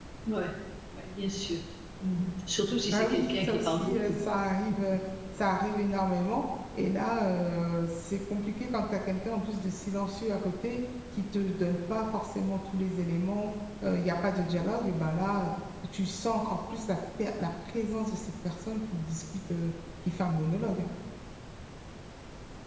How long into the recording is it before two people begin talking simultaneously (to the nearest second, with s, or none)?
3 s